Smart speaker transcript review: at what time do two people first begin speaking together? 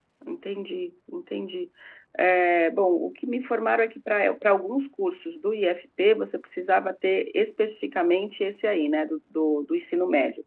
none

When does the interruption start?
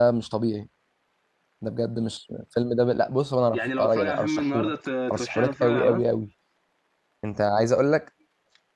3.5 s

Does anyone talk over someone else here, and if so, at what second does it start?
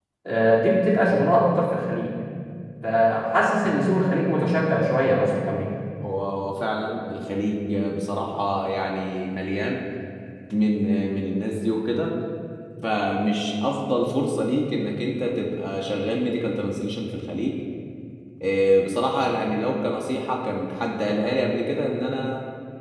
none

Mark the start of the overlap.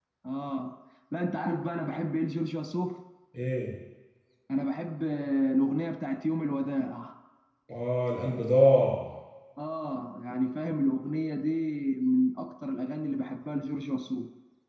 none

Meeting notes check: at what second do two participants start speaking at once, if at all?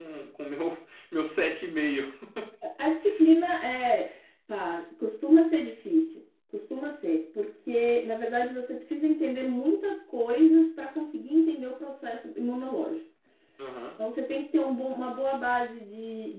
none

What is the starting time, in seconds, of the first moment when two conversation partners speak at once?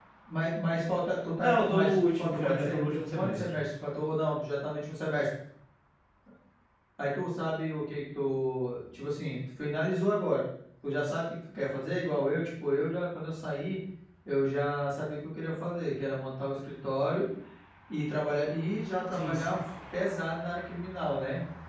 1.4 s

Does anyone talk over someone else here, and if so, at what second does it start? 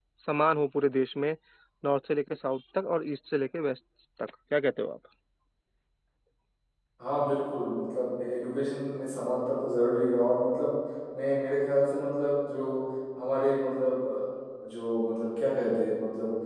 none

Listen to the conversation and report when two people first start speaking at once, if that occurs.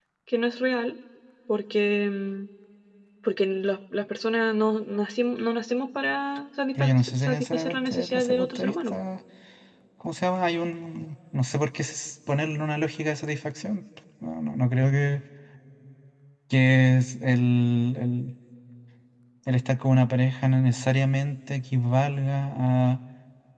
6.8 s

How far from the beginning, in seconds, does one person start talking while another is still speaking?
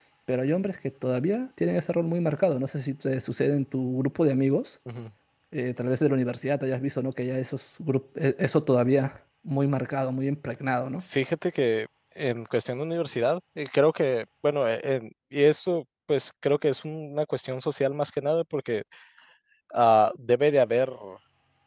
none

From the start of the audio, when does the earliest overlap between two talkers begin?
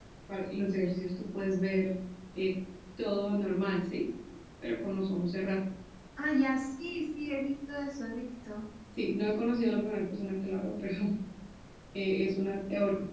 none

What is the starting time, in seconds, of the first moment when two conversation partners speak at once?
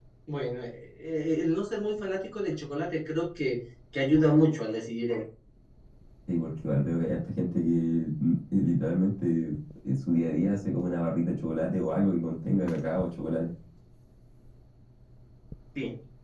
none

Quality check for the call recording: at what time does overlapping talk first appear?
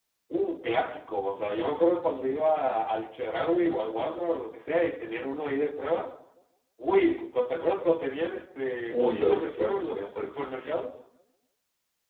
8.9 s

